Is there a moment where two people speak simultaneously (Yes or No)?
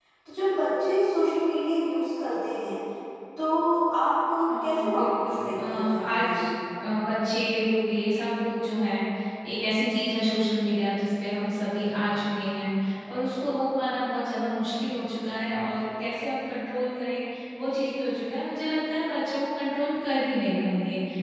Yes